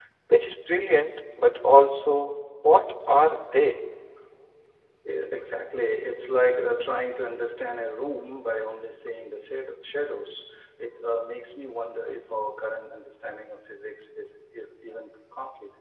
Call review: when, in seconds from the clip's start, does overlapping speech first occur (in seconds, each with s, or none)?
none